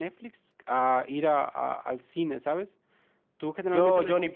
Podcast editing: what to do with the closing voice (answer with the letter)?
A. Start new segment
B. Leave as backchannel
A